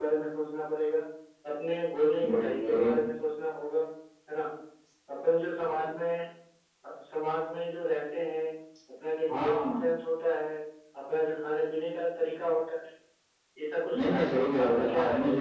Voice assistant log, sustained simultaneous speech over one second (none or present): present